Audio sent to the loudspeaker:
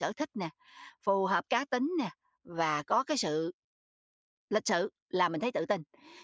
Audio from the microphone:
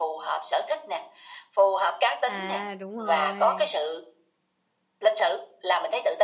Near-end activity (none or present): present